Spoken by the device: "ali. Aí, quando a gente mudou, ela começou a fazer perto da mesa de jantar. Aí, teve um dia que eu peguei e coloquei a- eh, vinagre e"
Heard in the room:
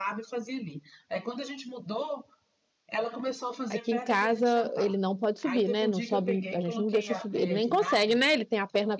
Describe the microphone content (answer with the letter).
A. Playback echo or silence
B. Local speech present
B